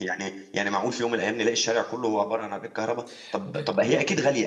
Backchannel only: Yes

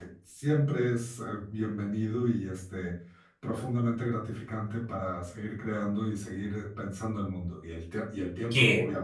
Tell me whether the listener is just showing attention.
No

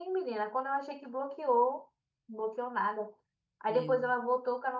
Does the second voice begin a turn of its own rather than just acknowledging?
No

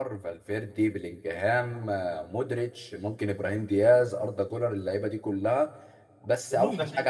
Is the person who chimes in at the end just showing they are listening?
Yes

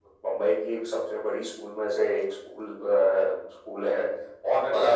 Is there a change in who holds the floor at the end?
No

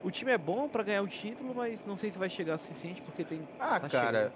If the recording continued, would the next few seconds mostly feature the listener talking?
Yes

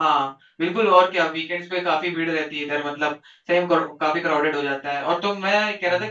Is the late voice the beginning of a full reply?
No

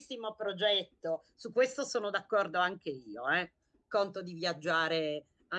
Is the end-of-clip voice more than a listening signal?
No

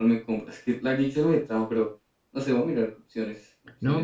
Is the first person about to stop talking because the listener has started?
Yes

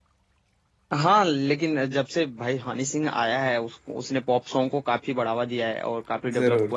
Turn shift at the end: No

